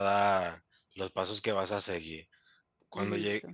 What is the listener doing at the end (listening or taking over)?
listening